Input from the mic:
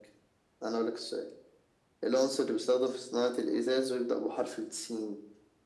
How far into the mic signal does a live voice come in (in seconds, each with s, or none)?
none